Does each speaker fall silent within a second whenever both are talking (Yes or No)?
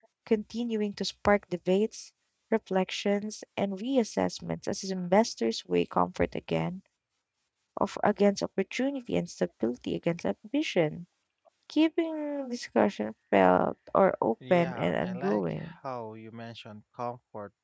No